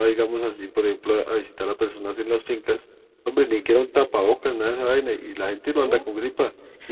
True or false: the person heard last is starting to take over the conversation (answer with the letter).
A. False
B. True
A